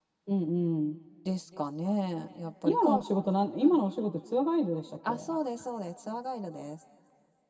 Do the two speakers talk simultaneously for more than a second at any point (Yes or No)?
No